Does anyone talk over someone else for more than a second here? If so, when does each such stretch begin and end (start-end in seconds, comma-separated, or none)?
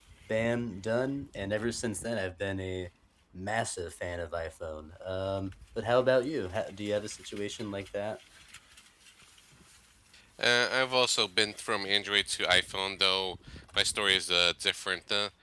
none